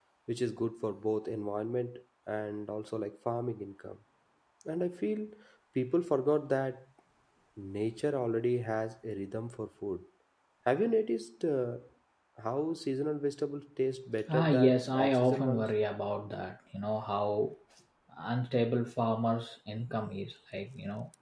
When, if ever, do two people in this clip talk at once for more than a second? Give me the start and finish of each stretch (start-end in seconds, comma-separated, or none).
14.3-15.7